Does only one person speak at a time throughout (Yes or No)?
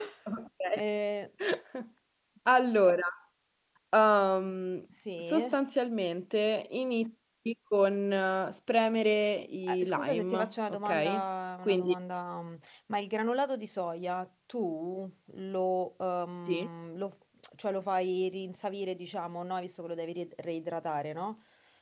No